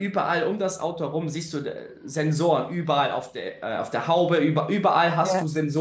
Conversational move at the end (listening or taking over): listening